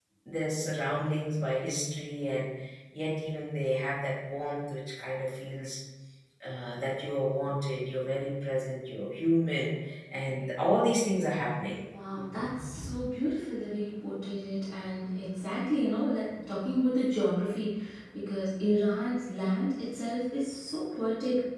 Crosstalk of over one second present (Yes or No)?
No